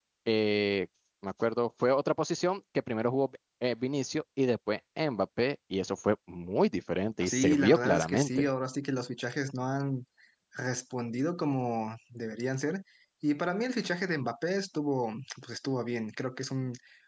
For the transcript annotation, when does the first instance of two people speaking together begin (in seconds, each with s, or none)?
7.2 s